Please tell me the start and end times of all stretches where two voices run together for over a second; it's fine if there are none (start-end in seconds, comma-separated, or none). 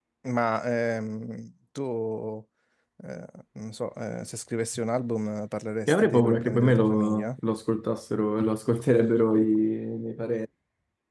5.9-7.3